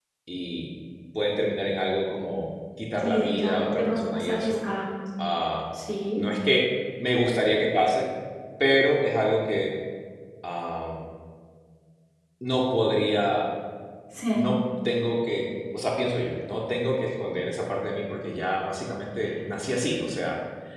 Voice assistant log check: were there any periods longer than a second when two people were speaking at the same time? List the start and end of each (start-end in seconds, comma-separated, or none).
3.0-4.6